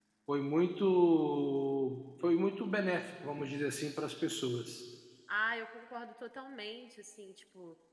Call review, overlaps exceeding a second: none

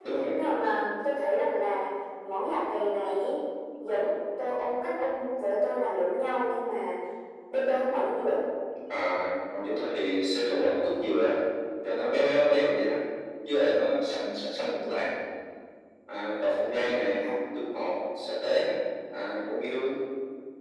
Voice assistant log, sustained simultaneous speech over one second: none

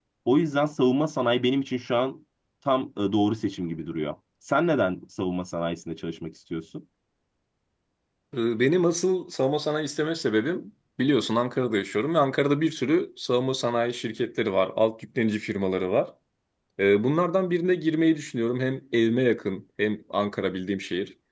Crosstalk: none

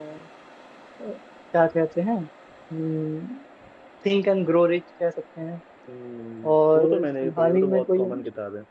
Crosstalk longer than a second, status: present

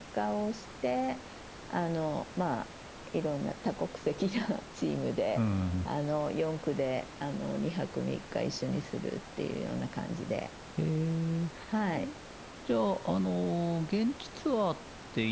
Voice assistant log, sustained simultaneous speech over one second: none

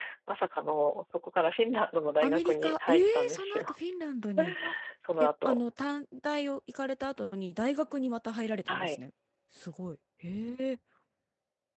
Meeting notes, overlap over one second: present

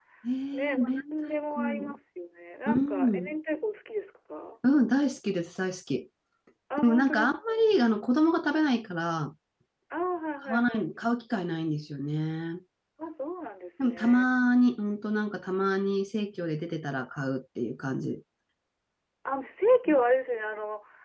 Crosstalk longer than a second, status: present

